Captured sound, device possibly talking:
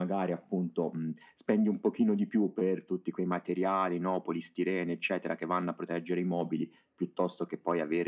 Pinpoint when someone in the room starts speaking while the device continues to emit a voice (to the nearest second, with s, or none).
none